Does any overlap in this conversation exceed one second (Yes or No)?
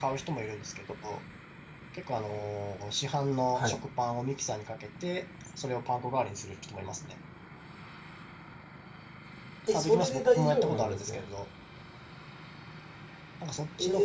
Yes